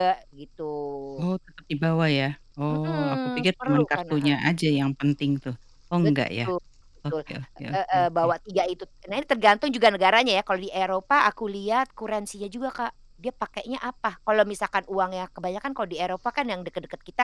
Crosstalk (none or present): present